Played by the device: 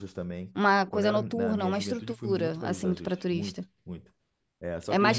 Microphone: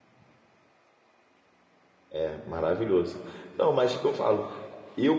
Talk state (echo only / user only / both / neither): user only